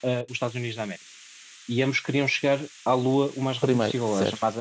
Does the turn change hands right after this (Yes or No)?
No